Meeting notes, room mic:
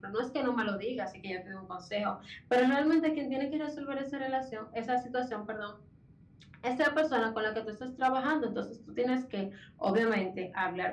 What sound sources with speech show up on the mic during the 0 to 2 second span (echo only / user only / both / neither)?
user only